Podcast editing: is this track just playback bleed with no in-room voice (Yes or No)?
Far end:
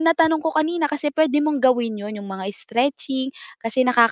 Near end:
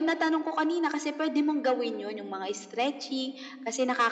Yes